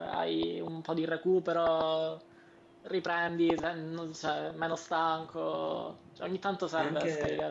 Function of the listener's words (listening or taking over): taking over